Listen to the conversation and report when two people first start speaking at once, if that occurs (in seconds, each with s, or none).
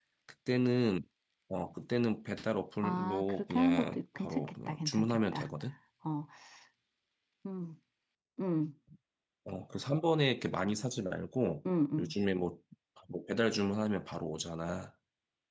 2.8 s